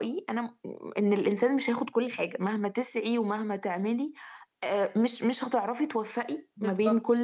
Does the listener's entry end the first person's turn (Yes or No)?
No